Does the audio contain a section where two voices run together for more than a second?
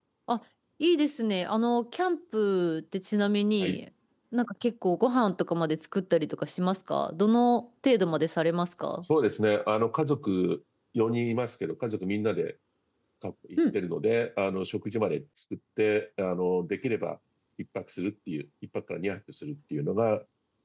No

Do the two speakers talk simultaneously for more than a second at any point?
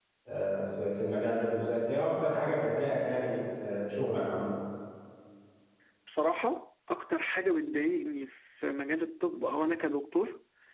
No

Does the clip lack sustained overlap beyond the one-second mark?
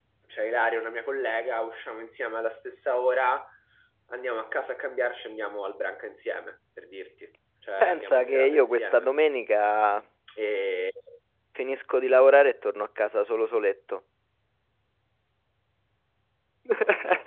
No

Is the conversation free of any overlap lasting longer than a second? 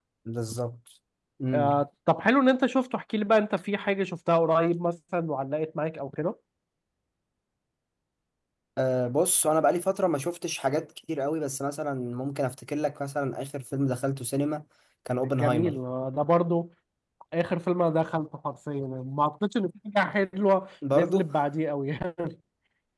Yes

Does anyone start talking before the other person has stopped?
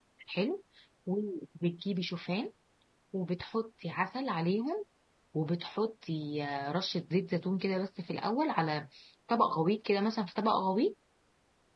No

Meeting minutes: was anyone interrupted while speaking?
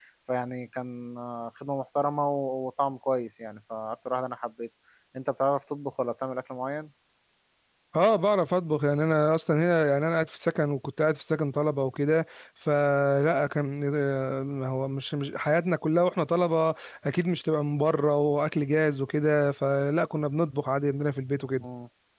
No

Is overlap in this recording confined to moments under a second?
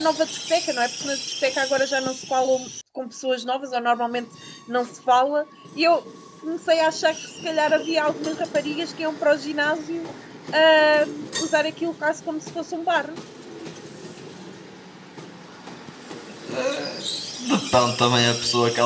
Yes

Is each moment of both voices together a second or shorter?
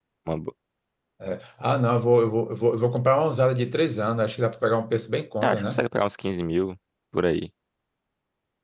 Yes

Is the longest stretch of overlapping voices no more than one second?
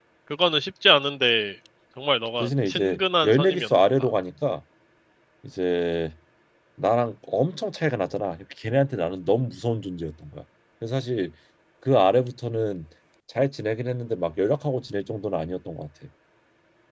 No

